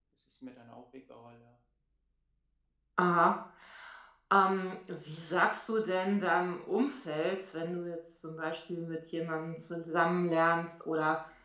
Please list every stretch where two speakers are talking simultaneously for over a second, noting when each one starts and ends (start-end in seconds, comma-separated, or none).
none